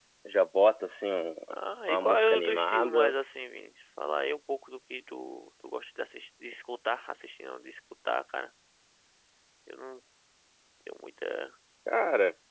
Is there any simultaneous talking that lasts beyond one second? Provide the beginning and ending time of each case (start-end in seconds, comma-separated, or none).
1.9-3.1